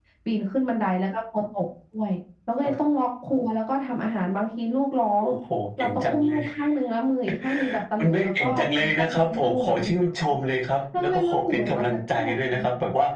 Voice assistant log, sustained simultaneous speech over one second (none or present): present